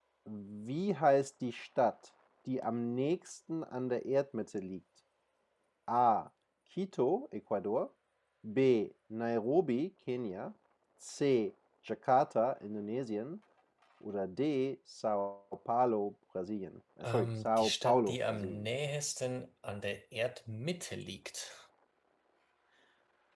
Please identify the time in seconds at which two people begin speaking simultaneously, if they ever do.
17.0 s

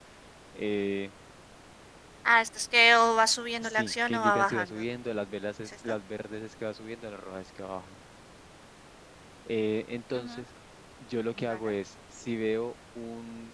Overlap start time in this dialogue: 3.6 s

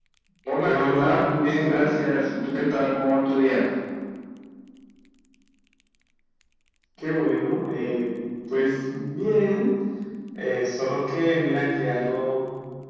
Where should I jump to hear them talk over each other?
0.6 s

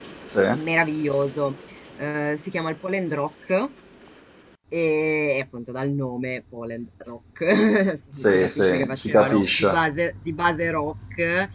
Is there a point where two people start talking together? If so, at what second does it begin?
8.2 s

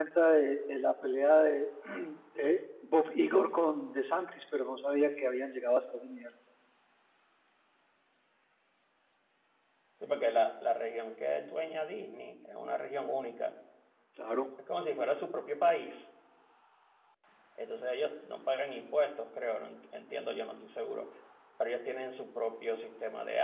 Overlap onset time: none

